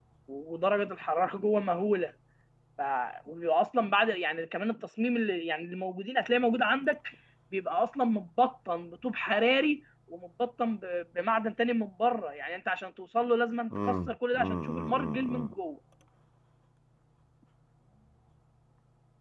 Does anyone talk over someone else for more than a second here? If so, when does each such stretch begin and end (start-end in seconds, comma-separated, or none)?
13.8-15.5